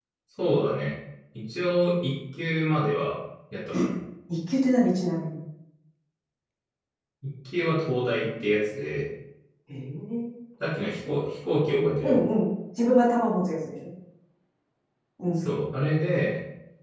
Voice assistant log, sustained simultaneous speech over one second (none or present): none